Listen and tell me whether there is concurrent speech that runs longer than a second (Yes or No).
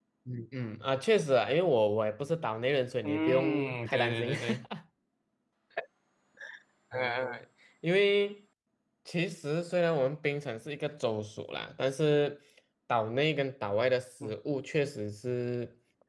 Yes